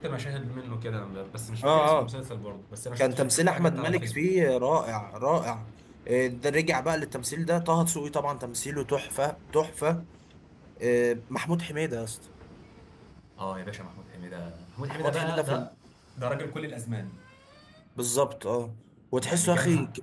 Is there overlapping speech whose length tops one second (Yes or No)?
Yes